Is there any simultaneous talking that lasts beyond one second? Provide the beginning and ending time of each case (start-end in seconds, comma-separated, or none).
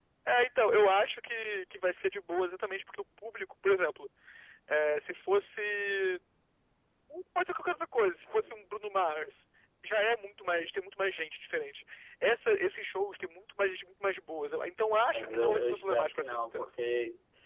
15.1-16.7